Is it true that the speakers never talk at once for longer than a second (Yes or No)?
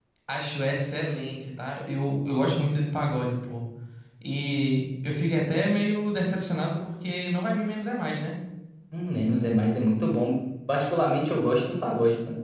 Yes